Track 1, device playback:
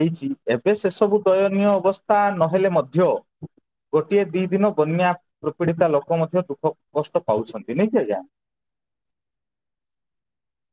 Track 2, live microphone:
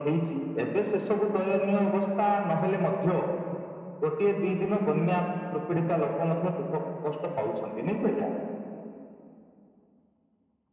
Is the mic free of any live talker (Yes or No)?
Yes